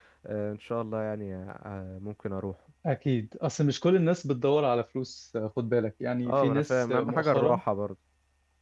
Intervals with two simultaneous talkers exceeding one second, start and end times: 6.2-7.6

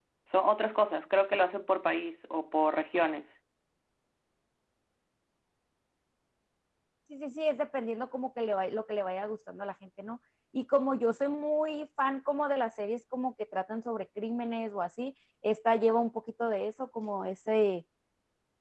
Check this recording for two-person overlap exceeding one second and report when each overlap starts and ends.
none

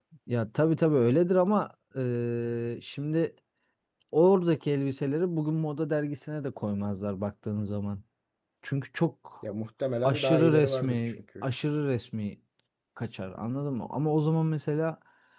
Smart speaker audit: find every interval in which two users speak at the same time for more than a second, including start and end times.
10.0-11.5

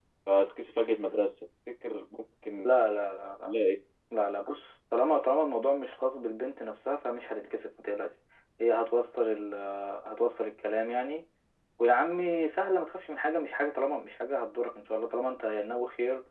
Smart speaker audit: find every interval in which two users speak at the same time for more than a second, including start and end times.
none

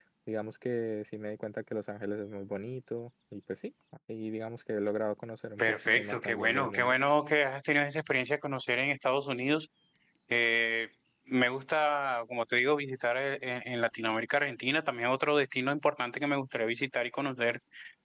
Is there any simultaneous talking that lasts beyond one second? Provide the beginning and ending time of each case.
5.6-7.0

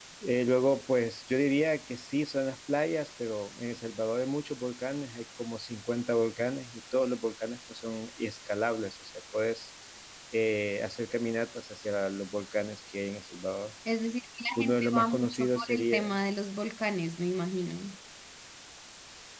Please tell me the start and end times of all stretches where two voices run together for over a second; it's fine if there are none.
14.6-16.2

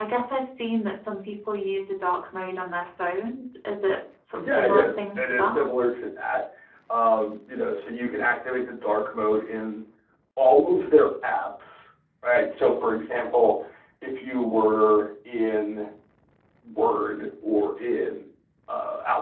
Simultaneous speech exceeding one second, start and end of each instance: 4.4-5.6

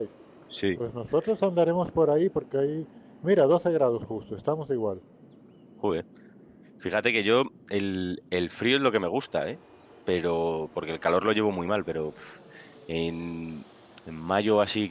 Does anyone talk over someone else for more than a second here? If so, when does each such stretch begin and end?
none

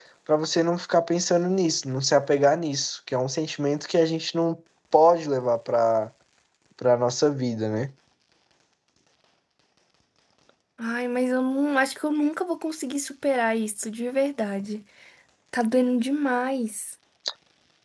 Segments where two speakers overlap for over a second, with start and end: none

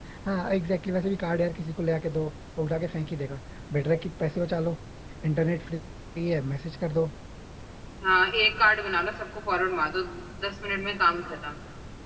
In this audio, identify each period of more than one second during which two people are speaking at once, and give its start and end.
none

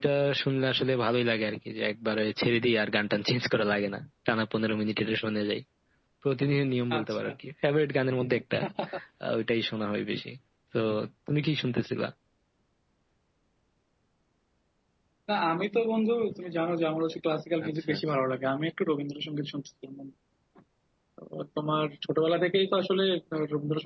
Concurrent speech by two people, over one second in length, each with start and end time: none

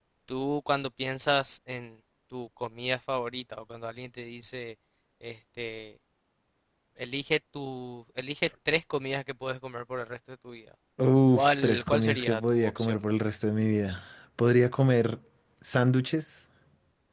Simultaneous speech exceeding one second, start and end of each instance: 11.3-13.0

